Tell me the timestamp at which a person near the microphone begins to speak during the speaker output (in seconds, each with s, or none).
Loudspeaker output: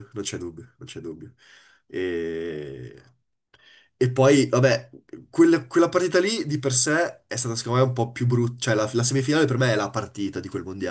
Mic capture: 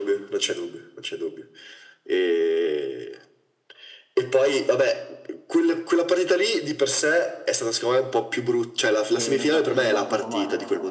9.1 s